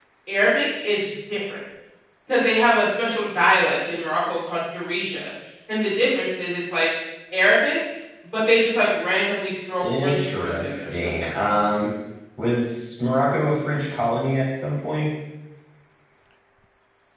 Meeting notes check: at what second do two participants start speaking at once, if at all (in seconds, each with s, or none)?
9.8 s